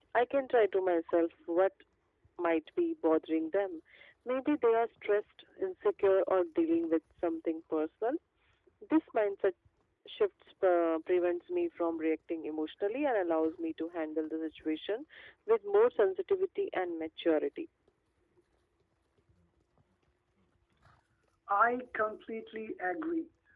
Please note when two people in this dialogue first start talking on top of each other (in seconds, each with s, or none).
none